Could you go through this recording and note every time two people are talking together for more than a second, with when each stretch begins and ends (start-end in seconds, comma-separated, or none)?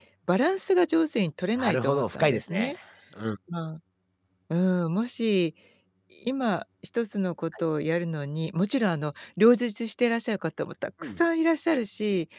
1.6-2.8